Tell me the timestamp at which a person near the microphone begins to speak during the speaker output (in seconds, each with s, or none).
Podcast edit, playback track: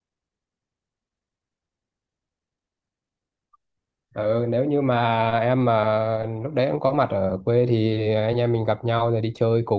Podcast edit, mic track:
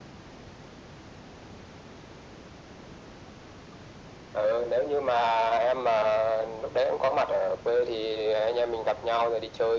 none